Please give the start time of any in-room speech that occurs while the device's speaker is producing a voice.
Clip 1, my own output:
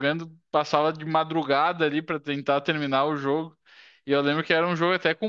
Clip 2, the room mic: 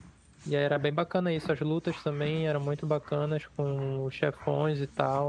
0.4 s

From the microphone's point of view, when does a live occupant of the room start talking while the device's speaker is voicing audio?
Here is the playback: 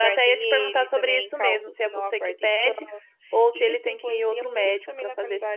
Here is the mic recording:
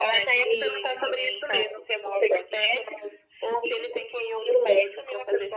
none

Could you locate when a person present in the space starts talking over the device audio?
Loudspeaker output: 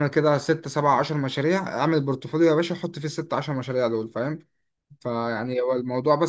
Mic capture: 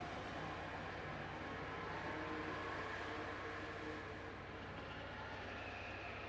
none

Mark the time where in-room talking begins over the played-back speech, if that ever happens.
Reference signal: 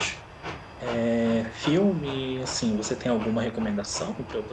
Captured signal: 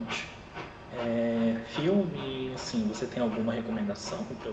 none

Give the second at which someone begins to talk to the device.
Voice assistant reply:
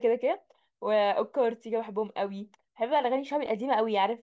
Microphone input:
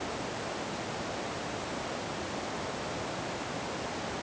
none

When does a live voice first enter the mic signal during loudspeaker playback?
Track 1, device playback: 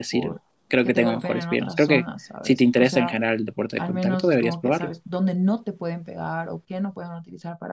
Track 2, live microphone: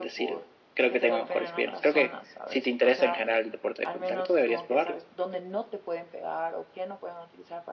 none

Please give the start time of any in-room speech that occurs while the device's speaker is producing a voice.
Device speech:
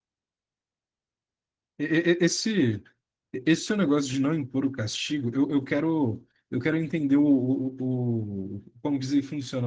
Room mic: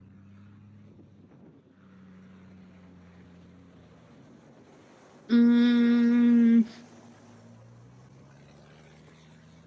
5.3 s

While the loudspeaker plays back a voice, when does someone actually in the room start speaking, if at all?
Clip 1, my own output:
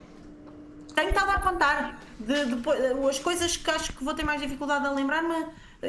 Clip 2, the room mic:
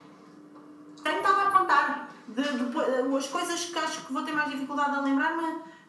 none

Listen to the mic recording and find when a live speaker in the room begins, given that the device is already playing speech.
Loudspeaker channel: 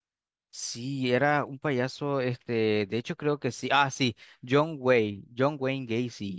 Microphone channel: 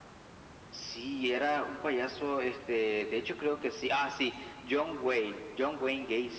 none

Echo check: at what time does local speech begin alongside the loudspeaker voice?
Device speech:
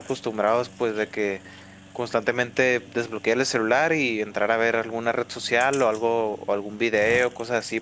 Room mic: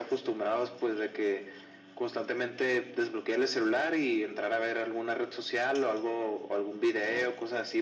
none

